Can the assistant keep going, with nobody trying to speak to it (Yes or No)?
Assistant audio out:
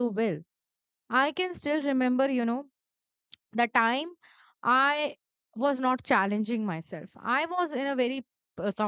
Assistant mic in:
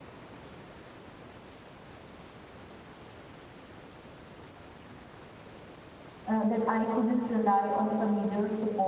No